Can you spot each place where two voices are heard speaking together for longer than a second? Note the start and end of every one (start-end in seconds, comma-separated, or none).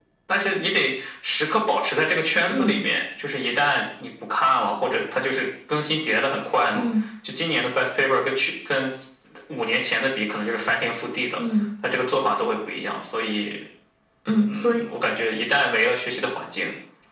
none